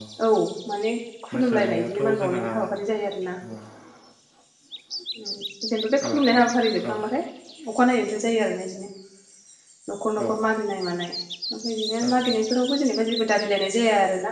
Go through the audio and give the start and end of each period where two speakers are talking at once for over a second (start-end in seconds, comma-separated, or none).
1.3-2.5